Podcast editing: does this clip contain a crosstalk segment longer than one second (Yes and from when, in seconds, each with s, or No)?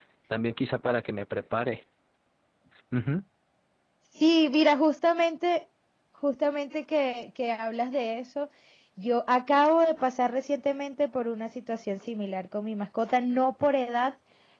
No